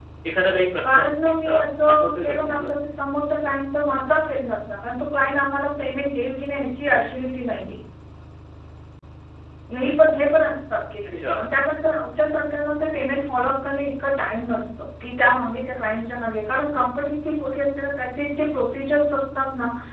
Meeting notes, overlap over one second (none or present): present